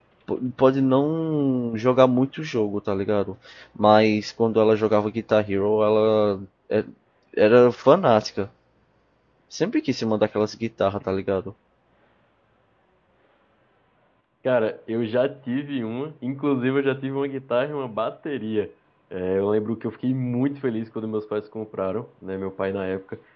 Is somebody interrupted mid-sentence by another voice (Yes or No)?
No